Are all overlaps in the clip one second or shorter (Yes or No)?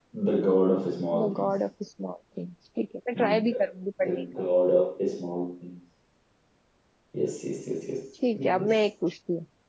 Yes